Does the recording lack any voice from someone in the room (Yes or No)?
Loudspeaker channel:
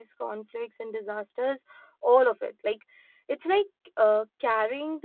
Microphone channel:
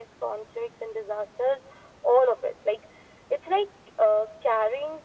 Yes